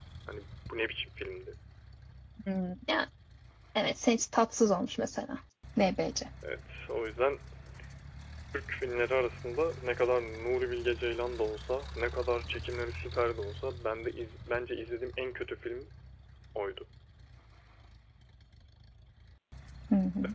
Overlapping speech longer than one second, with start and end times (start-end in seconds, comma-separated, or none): none